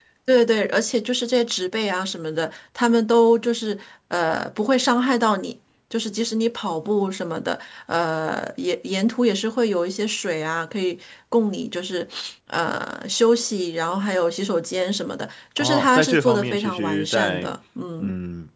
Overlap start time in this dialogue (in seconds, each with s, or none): 15.6 s